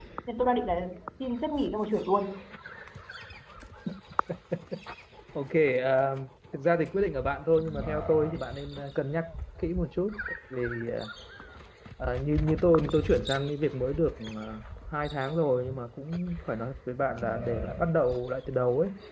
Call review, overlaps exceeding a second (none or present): none